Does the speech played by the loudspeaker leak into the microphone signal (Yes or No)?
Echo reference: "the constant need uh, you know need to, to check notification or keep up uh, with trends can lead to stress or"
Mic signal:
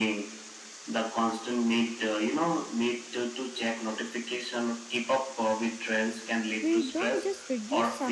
Yes